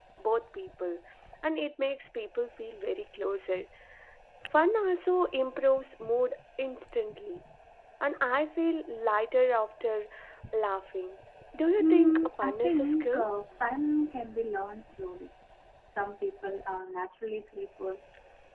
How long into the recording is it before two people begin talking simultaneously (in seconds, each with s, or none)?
11.8 s